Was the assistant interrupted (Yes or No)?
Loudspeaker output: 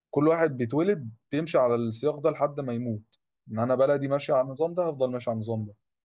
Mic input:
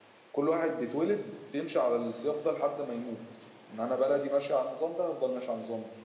No